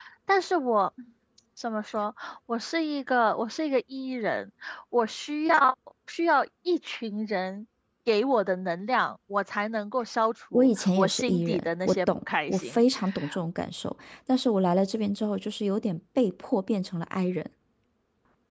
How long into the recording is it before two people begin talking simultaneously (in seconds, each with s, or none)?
10.5 s